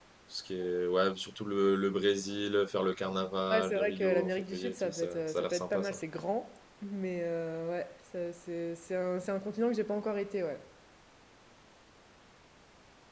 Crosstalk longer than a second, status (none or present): present